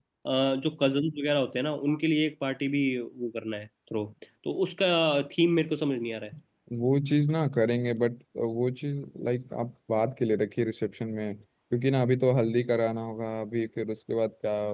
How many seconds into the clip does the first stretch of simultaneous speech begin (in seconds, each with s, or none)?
none